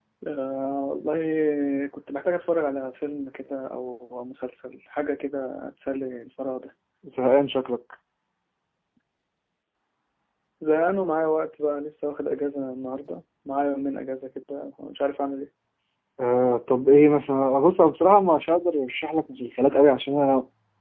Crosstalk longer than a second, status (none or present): none